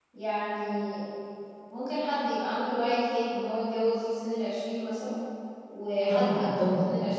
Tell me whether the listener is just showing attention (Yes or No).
Yes